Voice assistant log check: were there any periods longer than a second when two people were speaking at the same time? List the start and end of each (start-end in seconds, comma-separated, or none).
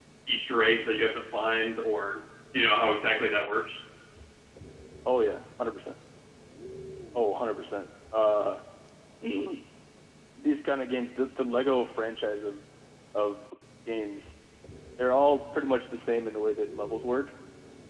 none